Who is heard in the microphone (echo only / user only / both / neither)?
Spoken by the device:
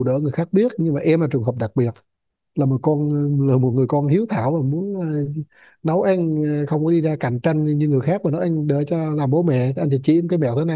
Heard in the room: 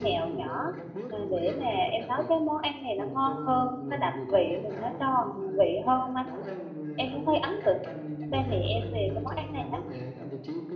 both